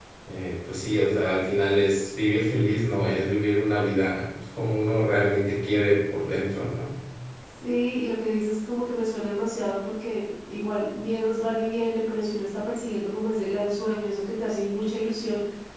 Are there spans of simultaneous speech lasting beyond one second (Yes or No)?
No